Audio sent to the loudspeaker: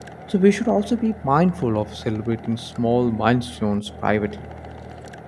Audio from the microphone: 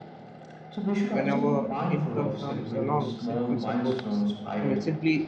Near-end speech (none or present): present